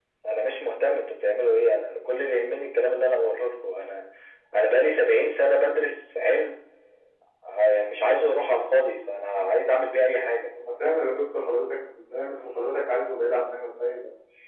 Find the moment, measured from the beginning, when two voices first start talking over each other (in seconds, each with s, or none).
none